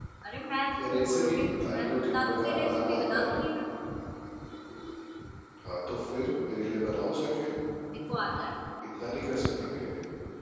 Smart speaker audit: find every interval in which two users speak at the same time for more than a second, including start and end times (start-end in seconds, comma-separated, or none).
0.8-3.4